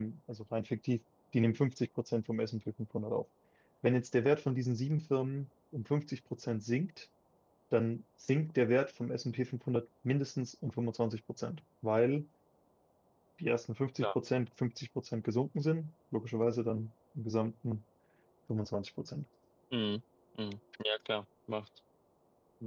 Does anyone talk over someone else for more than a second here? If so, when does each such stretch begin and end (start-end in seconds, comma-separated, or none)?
none